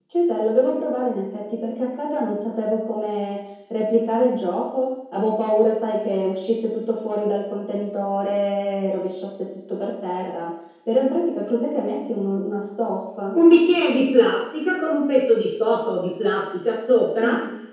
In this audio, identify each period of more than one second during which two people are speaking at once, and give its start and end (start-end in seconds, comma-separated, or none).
none